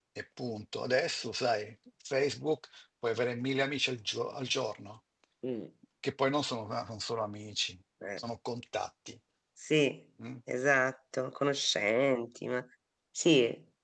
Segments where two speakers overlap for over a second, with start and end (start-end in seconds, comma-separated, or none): none